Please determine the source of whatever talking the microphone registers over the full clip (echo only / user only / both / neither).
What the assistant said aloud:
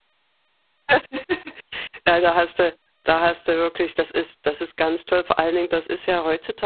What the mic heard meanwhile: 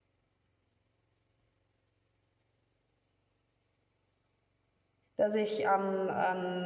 user only